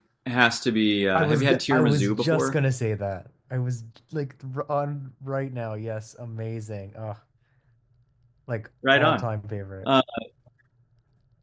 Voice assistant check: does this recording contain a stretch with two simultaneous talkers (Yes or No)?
Yes